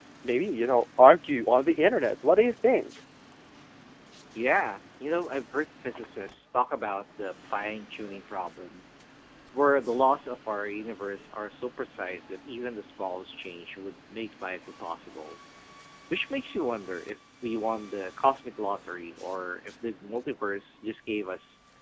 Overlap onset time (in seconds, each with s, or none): none